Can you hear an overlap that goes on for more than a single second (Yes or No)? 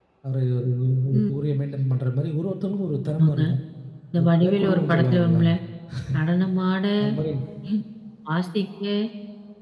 Yes